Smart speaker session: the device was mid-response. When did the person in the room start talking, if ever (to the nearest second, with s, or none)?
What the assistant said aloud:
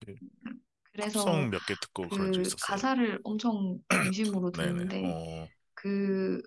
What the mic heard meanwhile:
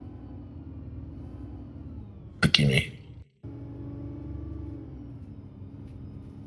2 s